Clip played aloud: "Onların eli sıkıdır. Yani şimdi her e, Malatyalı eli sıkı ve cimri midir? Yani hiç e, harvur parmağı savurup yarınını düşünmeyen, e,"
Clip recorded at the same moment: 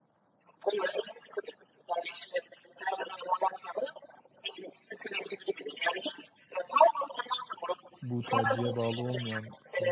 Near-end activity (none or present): present